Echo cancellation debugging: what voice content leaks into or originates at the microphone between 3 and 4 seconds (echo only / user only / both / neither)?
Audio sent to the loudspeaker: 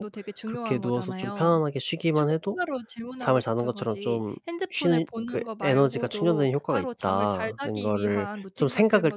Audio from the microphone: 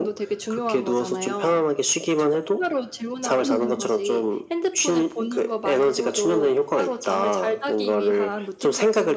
both